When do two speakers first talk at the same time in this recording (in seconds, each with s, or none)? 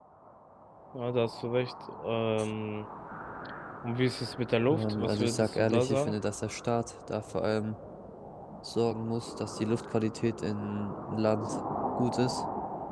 4.7 s